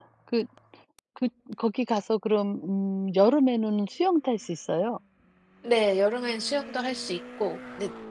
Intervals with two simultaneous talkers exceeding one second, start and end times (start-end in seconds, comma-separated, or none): none